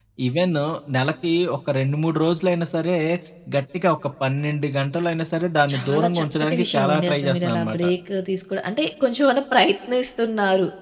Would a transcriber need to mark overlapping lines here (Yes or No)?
Yes